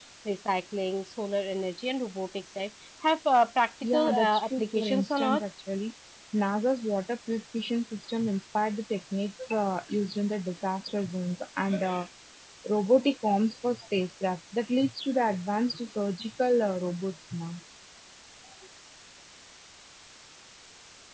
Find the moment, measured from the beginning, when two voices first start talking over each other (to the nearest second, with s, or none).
4 s